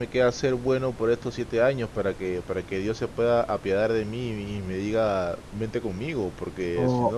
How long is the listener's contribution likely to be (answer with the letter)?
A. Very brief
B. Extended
B